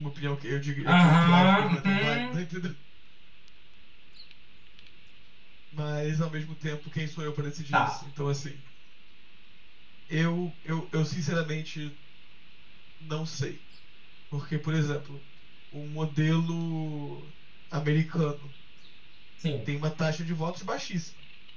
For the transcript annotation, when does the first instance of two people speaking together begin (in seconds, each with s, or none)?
0.8 s